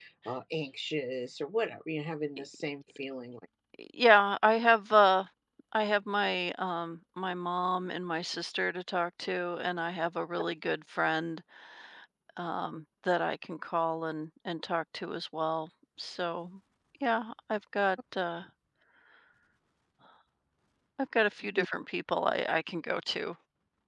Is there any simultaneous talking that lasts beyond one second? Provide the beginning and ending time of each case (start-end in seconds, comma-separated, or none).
none